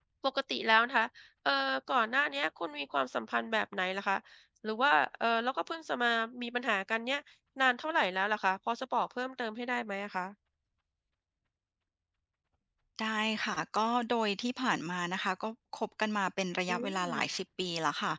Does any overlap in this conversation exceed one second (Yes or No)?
No